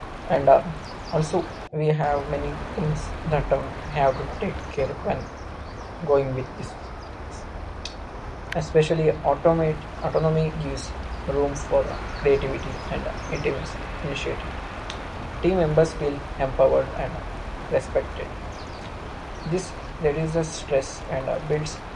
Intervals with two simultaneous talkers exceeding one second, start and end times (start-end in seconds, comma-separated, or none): none